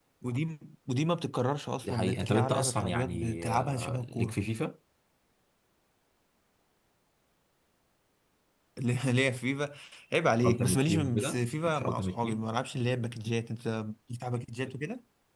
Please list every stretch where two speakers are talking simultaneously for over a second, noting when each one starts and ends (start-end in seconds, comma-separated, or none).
1.8-4.4, 10.4-12.4